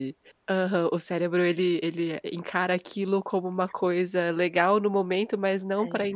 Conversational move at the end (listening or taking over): listening